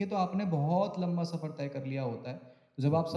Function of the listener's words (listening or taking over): listening